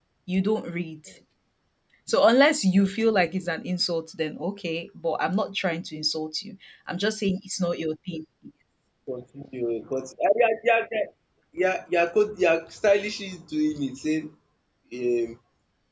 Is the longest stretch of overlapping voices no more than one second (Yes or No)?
Yes